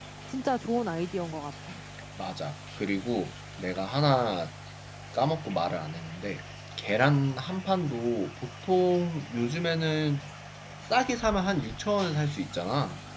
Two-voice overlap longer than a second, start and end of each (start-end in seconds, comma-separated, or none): none